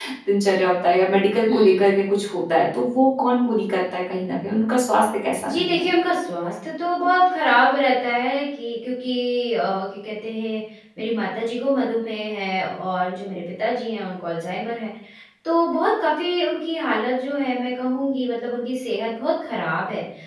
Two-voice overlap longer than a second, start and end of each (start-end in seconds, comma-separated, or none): none